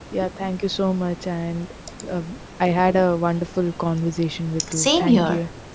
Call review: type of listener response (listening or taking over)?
taking over